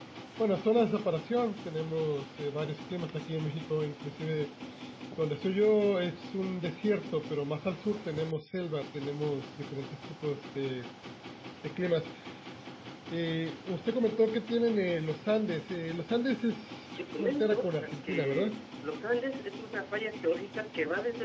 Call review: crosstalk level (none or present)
present